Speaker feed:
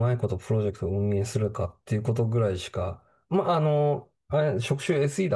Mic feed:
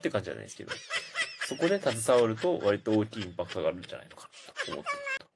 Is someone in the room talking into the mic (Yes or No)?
Yes